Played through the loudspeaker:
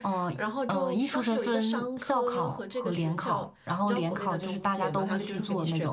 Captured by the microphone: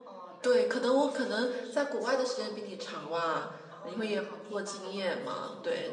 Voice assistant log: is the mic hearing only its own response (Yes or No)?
No